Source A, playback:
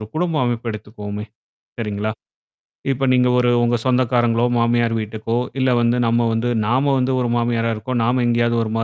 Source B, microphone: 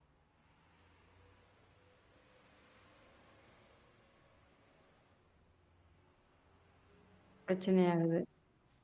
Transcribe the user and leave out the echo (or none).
பிரச்சனை ஆகுது.